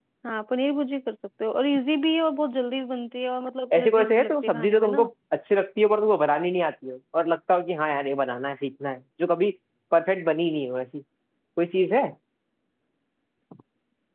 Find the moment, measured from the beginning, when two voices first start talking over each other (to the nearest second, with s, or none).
4 s